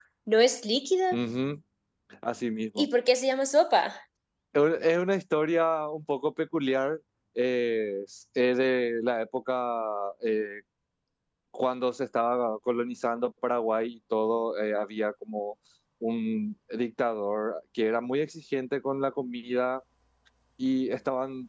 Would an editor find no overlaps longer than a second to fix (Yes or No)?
Yes